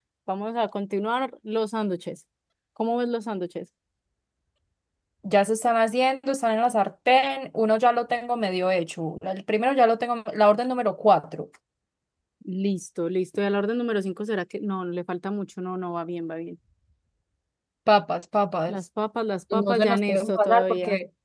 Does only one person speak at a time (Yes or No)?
No